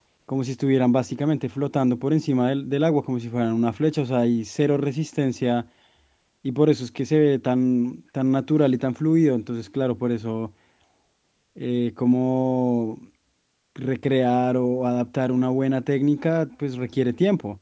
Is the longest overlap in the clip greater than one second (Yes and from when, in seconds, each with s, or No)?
No